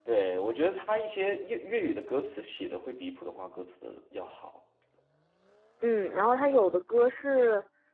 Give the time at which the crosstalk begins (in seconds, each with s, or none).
none